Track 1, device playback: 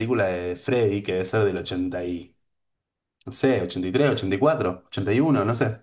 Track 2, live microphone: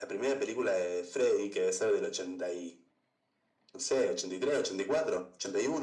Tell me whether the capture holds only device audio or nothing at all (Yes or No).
Yes